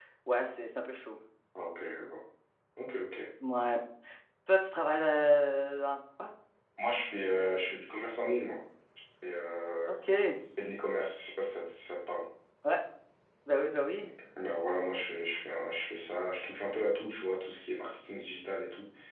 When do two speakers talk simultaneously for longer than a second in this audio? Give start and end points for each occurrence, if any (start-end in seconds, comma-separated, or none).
none